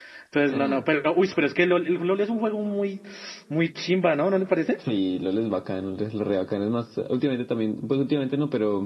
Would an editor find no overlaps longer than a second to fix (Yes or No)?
Yes